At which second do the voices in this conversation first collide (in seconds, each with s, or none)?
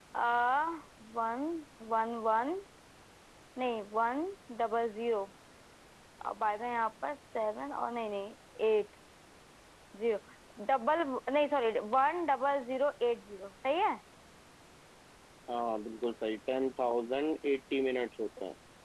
none